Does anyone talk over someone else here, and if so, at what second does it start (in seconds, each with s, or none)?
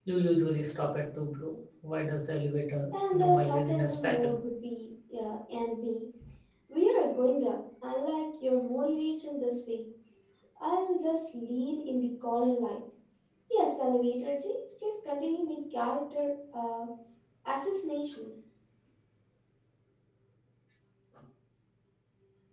2.9 s